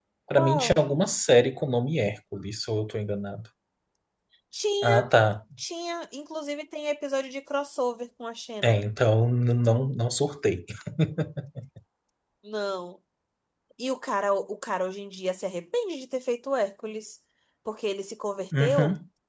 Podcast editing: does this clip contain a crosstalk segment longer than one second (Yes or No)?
No